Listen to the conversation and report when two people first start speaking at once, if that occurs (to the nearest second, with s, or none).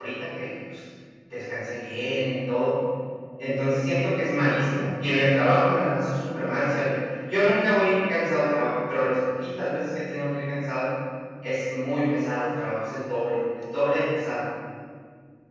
none